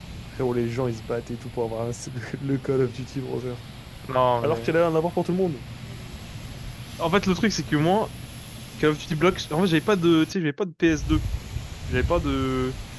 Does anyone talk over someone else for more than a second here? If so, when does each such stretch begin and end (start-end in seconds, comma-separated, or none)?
none